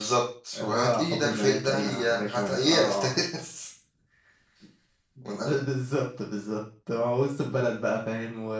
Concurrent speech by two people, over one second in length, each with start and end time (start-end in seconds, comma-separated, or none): 0.5-3.2